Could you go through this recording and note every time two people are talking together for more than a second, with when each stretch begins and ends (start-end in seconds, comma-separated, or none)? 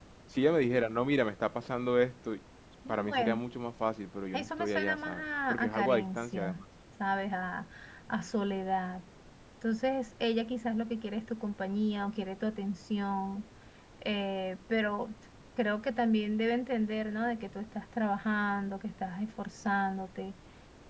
4.3-6.6